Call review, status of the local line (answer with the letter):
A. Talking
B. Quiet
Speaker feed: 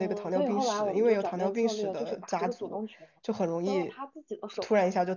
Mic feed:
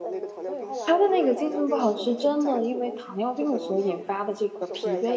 A